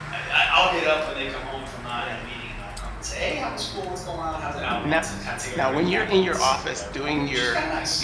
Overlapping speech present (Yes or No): Yes